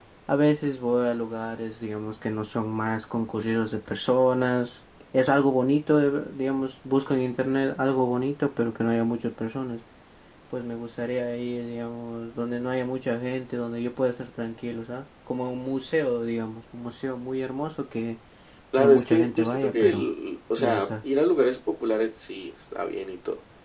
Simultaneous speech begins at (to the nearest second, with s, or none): 19 s